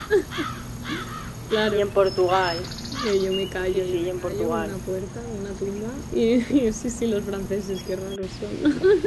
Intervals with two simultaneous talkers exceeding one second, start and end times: 3.6-4.8

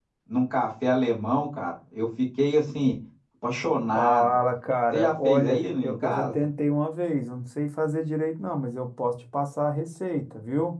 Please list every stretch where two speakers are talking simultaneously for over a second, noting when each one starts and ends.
4.9-6.3

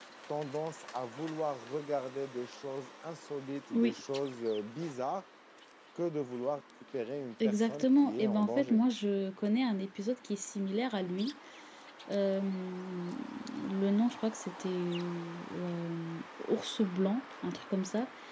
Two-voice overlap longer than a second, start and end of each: 7.4-8.8

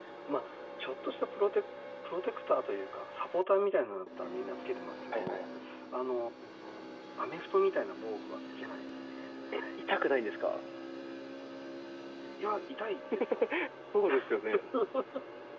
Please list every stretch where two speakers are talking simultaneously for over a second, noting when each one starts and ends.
none

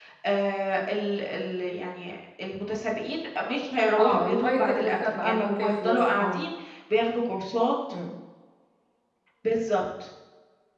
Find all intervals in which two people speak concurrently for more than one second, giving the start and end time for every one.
4.0-6.4

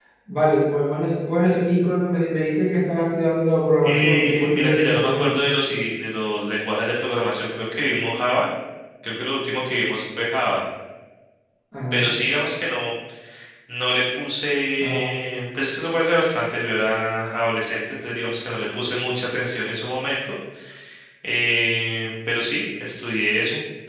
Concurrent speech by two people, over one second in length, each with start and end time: 3.8-5.5

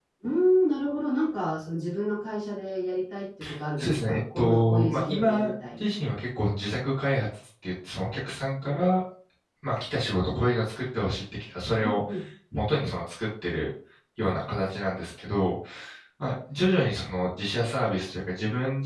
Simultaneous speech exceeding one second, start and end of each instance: 3.8-5.8

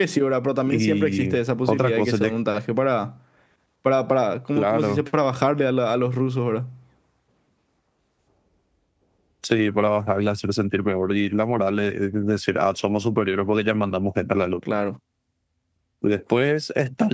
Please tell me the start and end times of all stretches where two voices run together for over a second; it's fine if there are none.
0.7-2.3

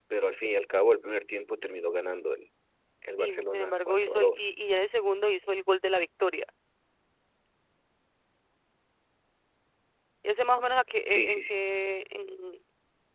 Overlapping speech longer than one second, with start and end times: 3.2-4.5

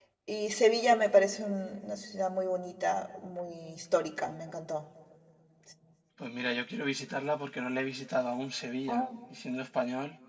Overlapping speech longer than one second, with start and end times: none

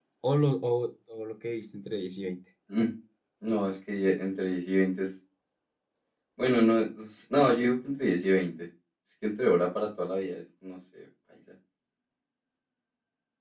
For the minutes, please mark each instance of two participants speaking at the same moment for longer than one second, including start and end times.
none

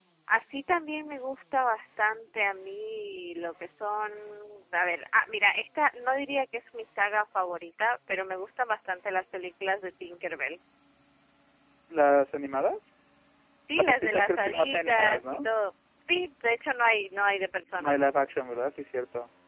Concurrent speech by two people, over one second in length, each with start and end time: 13.8-15.4

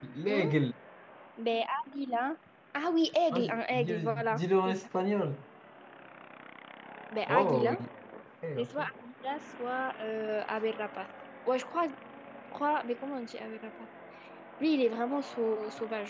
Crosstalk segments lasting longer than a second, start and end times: 3.3-4.7

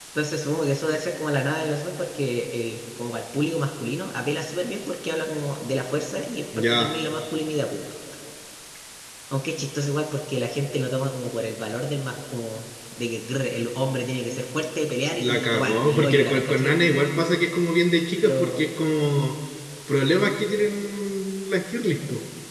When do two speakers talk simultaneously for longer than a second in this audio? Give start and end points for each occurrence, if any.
15.1-16.8

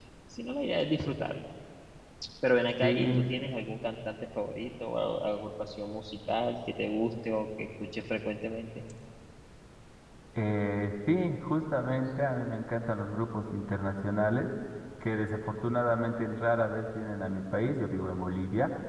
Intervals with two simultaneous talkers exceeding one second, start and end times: none

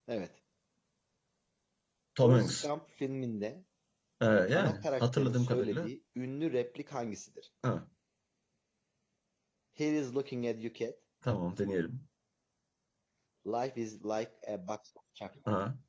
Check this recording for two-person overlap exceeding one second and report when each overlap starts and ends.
4.5-5.9

